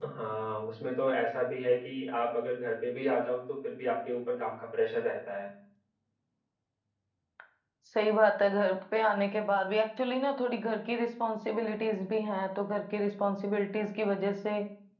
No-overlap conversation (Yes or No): Yes